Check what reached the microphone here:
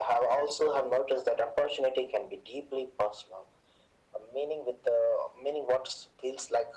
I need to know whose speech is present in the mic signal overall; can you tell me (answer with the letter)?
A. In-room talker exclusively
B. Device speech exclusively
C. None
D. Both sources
B